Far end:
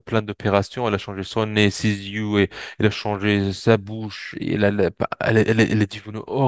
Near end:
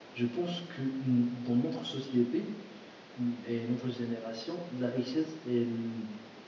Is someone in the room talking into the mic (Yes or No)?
Yes